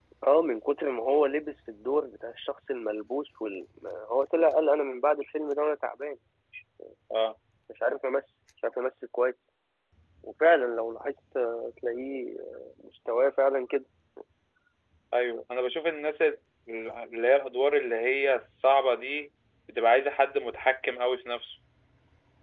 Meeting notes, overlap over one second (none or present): none